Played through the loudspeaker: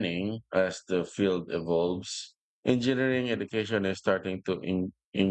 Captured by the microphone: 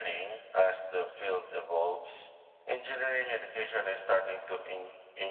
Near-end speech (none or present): none